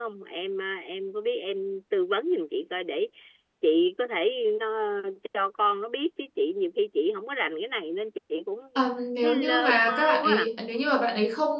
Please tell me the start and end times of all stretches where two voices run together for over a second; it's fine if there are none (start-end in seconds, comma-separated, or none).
9.2-10.5